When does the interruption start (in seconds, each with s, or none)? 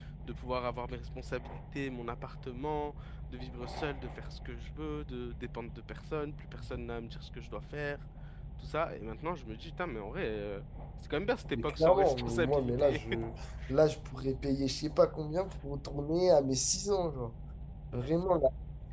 11.6 s